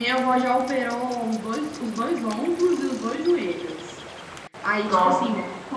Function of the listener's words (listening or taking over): listening